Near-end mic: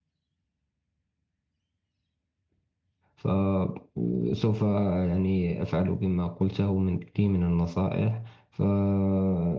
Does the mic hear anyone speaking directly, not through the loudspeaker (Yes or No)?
Yes